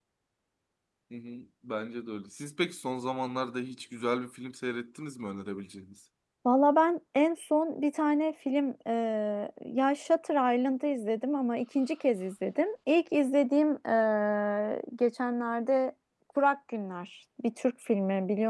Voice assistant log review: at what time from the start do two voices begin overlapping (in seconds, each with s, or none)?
none